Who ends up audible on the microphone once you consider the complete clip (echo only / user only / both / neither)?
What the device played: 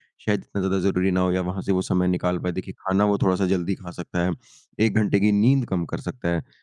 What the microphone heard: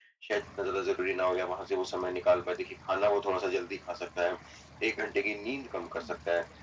echo only